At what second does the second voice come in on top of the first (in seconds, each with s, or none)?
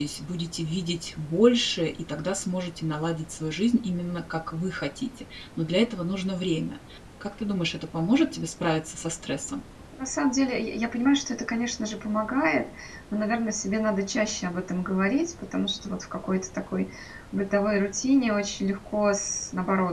none